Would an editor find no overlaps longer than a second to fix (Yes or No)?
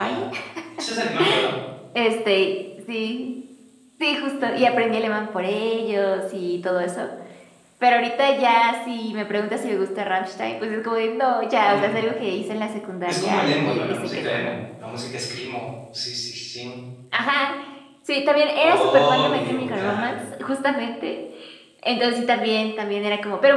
No